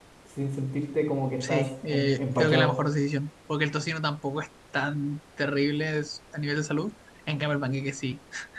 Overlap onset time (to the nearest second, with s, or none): 1 s